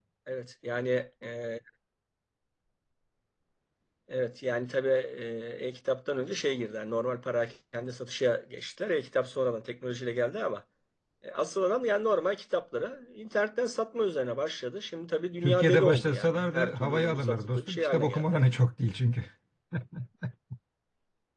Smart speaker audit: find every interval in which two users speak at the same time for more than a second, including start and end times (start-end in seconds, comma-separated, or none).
15.4-18.4